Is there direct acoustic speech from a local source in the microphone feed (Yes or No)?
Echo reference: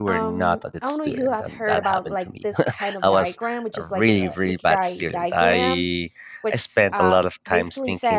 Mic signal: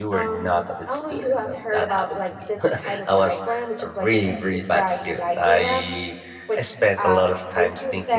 No